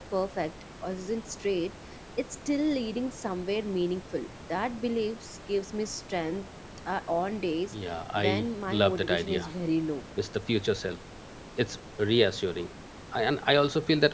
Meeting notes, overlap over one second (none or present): present